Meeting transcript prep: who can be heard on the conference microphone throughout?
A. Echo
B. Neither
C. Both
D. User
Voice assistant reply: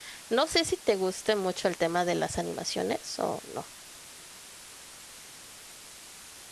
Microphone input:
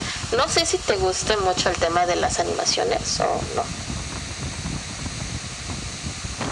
A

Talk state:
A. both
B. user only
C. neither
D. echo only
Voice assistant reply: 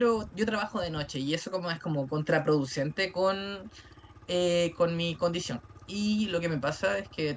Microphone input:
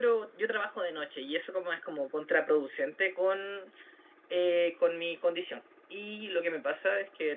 D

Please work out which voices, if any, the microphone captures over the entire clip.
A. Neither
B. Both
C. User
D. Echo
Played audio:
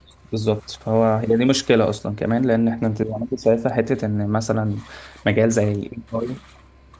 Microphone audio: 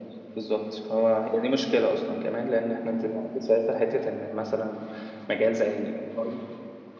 D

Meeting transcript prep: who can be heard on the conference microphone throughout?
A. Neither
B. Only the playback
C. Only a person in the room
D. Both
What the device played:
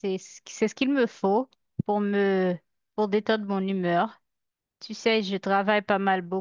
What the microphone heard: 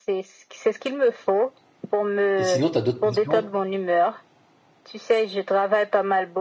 D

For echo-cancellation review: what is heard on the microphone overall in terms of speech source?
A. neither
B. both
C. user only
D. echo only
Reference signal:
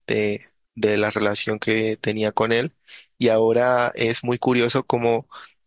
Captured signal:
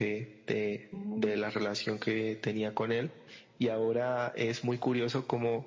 B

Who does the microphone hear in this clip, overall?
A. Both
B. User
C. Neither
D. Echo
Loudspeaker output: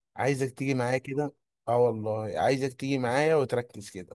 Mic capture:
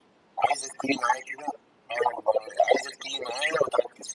D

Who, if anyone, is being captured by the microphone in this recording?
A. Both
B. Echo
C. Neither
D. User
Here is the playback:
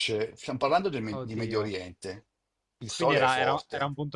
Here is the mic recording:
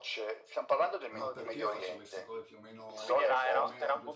A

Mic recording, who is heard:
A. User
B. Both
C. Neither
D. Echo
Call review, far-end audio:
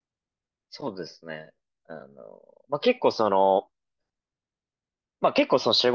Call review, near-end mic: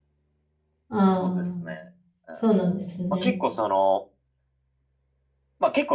B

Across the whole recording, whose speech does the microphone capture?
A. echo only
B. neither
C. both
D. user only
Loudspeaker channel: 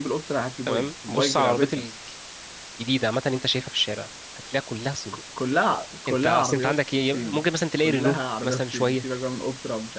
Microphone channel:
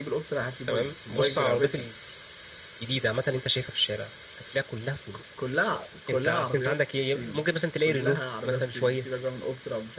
A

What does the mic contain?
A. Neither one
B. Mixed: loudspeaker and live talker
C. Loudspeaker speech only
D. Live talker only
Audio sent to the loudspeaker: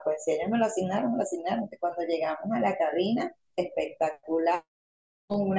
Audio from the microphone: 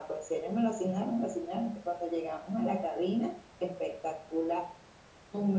C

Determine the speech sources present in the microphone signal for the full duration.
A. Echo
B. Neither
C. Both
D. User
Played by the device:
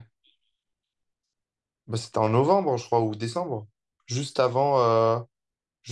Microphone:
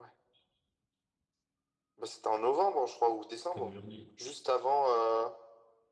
C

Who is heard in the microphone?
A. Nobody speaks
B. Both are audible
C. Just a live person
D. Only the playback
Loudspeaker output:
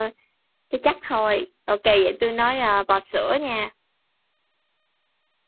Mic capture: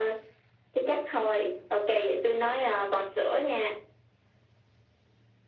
D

